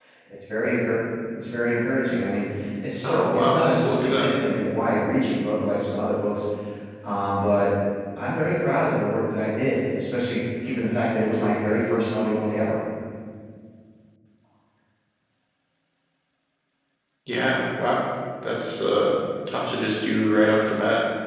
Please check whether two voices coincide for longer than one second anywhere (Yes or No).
Yes